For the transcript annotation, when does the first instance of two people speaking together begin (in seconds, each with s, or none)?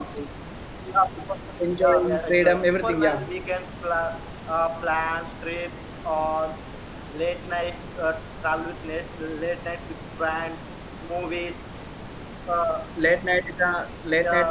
1.8 s